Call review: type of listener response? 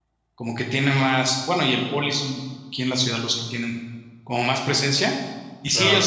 listening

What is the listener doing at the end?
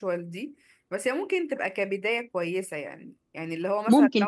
listening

